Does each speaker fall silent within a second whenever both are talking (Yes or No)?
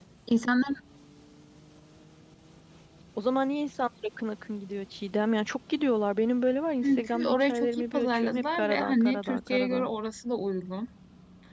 No